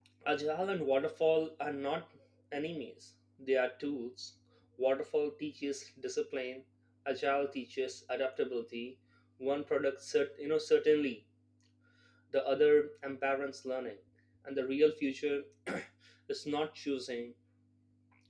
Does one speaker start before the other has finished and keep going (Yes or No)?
No